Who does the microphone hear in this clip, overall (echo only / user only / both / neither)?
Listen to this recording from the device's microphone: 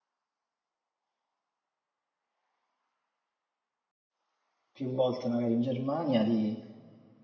user only